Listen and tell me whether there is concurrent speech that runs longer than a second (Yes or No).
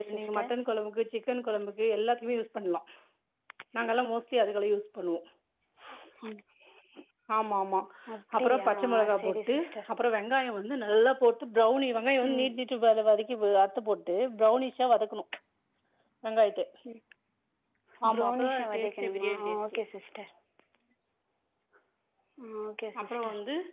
Yes